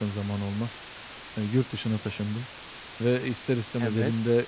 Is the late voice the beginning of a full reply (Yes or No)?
No